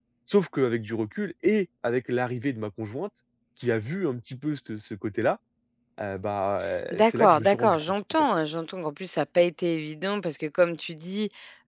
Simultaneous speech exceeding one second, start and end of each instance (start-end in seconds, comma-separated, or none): 7.0-8.2